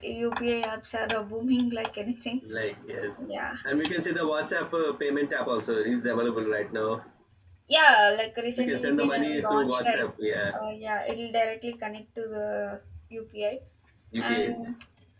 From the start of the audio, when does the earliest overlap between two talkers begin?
8.6 s

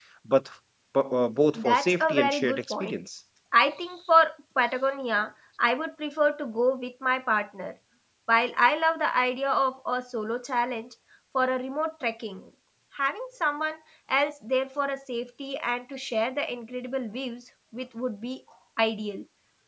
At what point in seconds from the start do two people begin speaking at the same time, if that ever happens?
1.6 s

